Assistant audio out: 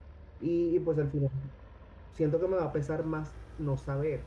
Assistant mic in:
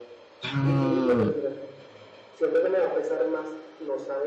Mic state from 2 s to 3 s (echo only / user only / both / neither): echo only